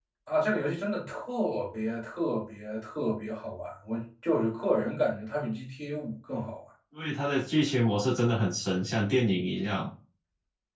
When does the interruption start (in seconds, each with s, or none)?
none